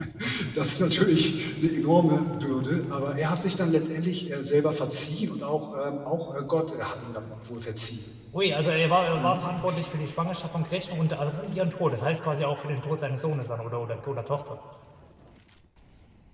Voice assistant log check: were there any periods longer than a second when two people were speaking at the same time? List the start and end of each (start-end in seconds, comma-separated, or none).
none